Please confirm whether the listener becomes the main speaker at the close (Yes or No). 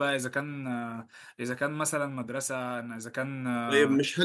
Yes